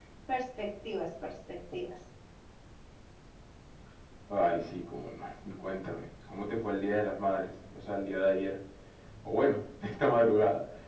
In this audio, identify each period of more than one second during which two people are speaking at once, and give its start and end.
none

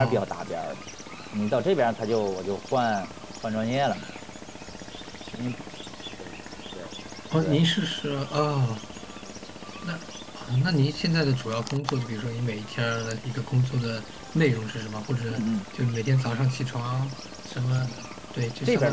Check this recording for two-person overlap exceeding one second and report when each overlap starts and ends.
none

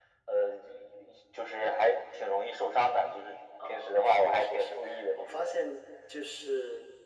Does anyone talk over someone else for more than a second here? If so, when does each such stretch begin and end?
3.7-5.5

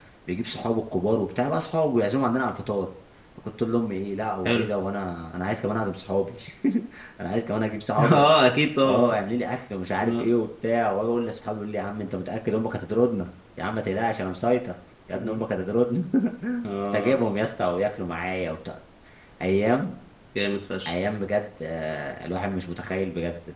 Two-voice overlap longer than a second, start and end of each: none

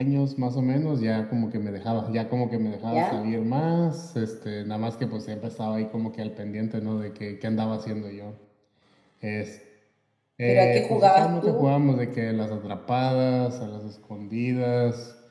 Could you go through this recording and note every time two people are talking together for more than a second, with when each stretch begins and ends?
10.5-11.7

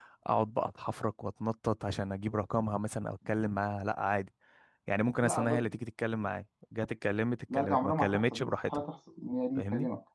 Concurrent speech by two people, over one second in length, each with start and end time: 7.5-8.8

